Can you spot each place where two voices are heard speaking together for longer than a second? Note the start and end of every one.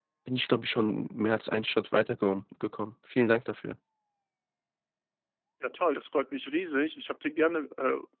none

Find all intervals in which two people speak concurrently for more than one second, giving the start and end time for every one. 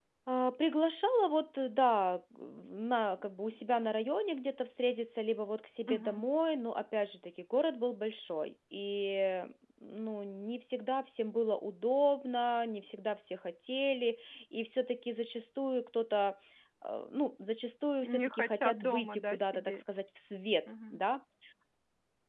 18.2-19.8

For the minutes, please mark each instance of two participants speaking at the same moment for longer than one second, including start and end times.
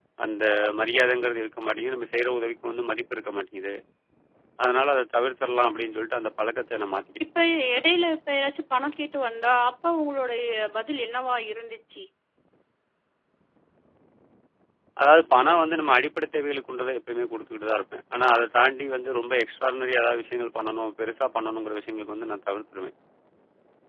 none

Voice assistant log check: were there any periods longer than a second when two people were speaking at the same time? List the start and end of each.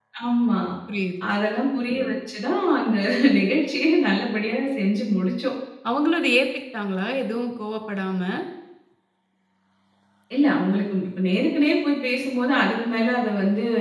none

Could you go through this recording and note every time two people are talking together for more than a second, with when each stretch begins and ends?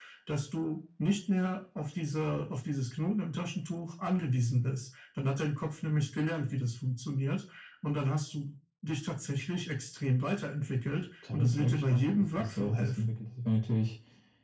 11.3-13.1

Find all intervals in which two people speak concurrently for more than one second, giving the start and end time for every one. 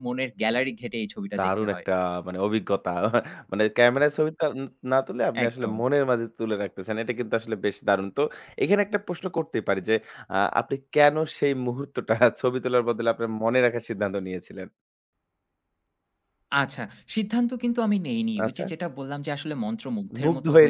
none

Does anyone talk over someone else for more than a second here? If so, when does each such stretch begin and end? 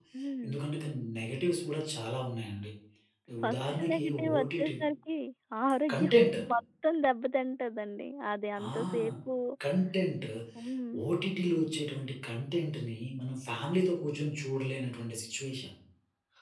3.5-4.7

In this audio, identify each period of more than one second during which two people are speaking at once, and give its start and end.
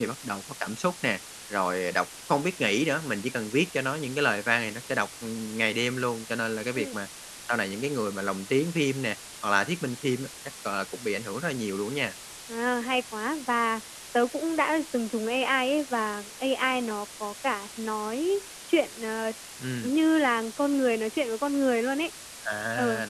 none

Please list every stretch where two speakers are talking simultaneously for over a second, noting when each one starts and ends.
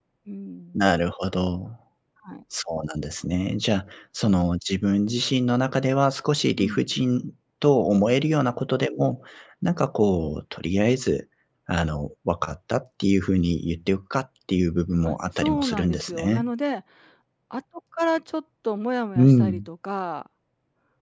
15.0-16.4

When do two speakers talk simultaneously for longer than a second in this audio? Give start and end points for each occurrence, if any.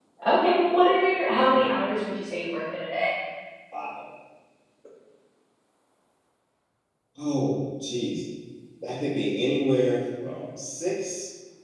none

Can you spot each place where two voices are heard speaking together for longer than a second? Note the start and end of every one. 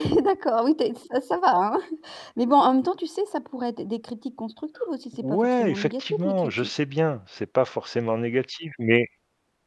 5.2-6.7

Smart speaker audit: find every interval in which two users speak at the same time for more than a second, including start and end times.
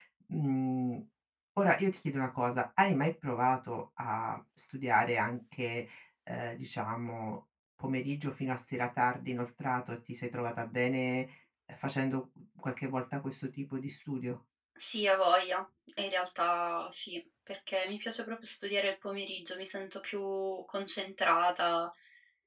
none

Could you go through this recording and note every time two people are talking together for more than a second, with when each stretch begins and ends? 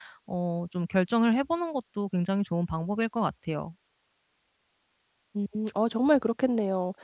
none

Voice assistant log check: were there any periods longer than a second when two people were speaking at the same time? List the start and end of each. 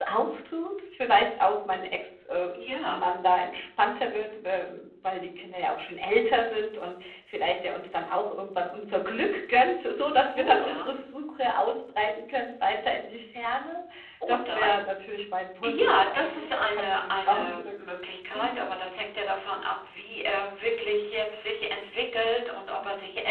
15.6-17.7

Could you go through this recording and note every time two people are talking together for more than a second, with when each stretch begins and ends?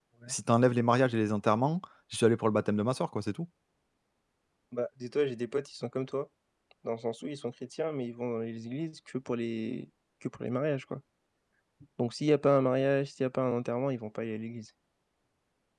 none

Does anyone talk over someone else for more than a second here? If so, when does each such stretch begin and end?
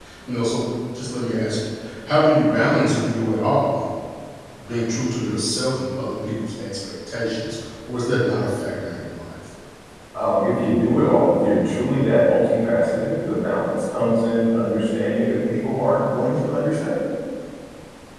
none

